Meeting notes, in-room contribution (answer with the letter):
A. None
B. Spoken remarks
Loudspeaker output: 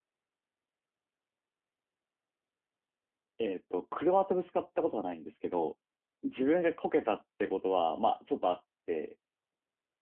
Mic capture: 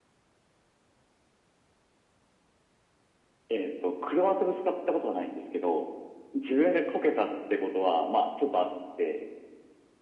A